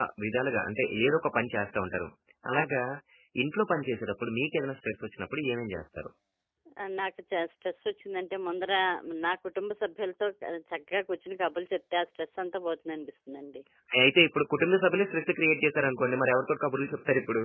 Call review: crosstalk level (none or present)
none